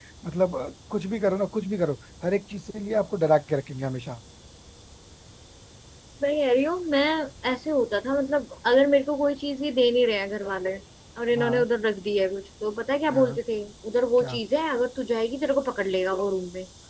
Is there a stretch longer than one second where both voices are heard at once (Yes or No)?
No